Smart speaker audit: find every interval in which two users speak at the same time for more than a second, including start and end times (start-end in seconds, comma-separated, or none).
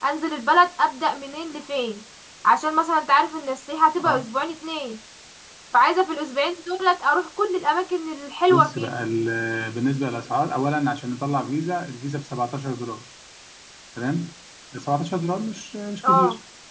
none